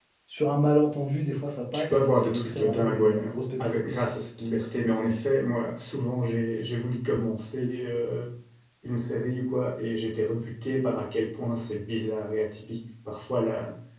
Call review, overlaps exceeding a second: present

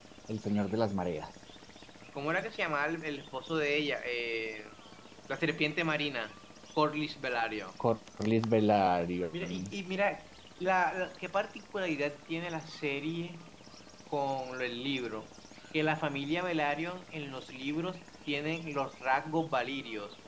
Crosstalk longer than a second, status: none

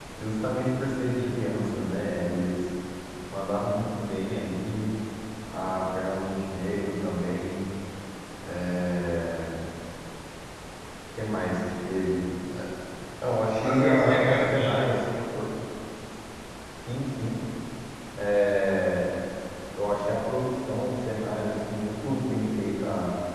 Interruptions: present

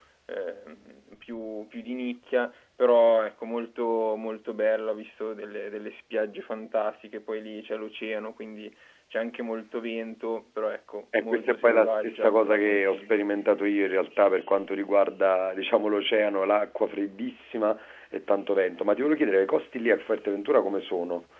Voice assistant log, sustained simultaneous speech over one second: present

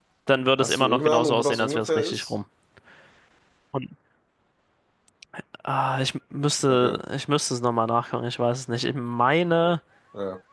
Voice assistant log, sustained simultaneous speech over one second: present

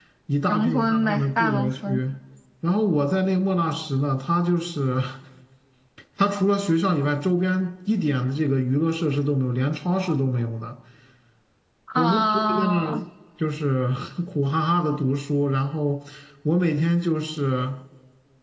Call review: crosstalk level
present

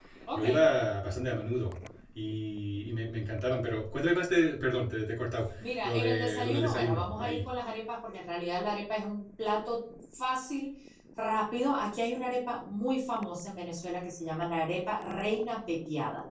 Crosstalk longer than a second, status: present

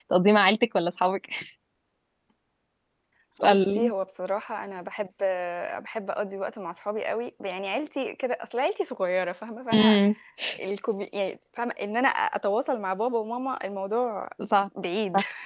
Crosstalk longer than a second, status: none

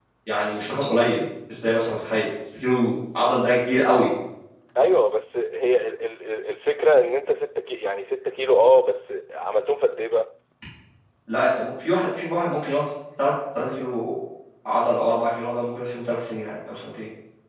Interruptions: none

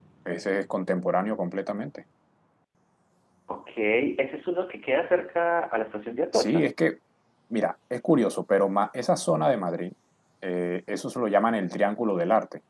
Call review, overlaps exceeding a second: none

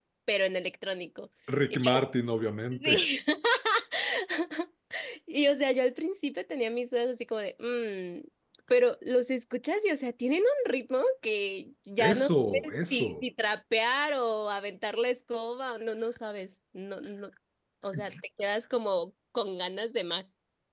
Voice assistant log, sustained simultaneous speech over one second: present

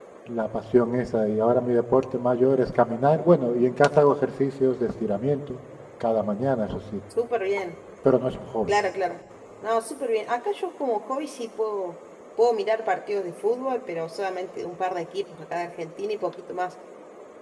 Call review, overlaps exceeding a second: none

